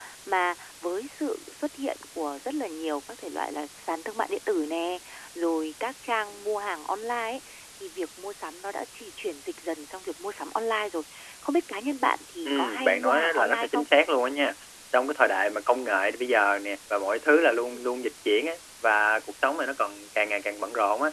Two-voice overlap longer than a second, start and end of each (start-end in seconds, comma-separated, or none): 12.4-13.9